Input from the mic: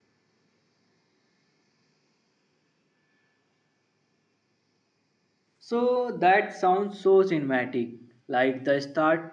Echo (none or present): none